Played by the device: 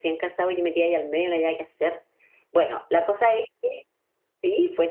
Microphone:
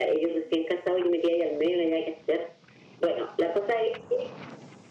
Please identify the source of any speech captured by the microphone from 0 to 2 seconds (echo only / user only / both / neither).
echo only